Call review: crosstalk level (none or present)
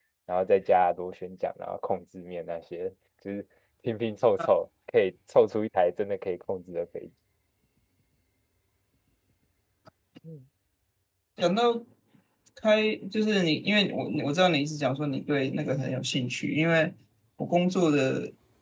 none